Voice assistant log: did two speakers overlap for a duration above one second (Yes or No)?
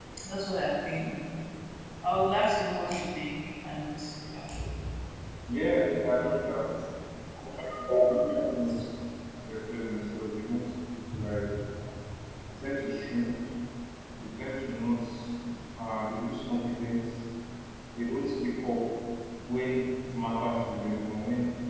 No